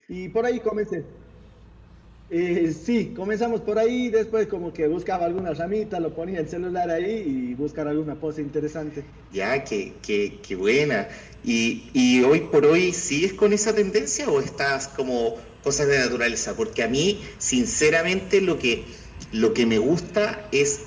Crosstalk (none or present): none